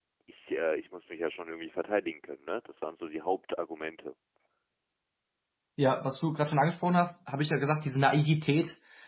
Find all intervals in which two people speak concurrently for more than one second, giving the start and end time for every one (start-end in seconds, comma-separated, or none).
none